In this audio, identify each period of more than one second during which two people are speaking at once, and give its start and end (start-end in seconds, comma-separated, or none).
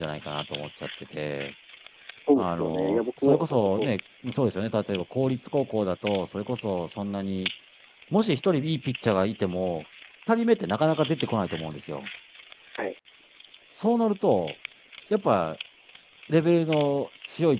2.4-3.9